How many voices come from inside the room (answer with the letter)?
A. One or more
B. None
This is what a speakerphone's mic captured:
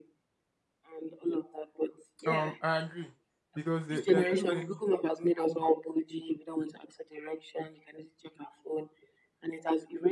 A